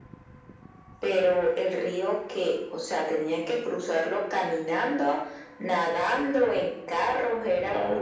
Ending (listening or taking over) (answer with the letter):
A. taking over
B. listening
A